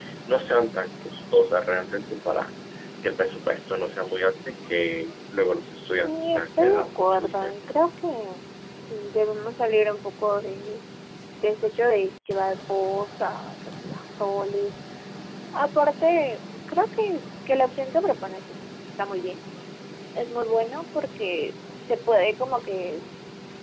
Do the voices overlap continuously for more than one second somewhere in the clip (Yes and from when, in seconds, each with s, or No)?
Yes, from 6.0 s